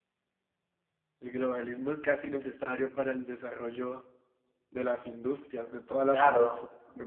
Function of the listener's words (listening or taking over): taking over